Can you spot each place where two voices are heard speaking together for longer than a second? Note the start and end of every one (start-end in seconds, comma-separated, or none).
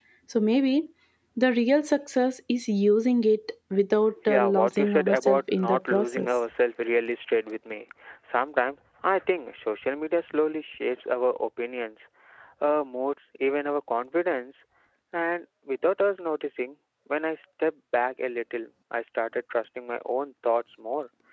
4.3-6.3